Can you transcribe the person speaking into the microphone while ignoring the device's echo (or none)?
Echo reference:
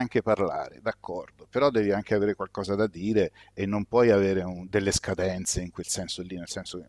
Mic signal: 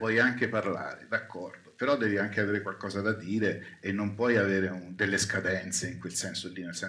none